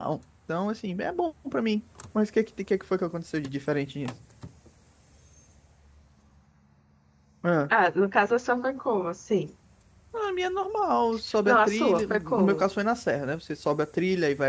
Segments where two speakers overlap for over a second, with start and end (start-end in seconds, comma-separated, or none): 11.4-12.7